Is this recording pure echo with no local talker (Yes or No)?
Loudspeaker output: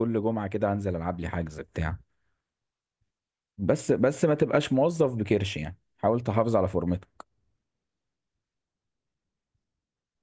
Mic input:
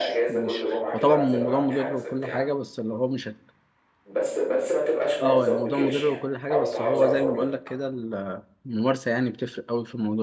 No